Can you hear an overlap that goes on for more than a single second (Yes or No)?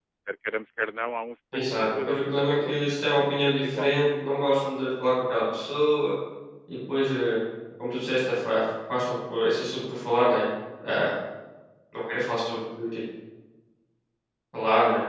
Yes